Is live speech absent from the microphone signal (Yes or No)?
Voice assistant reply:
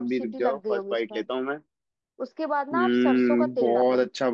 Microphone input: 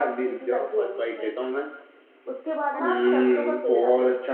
No